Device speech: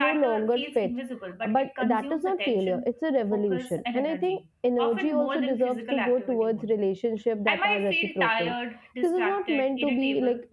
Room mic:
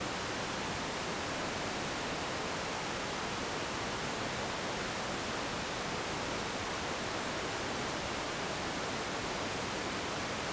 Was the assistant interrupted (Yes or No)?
No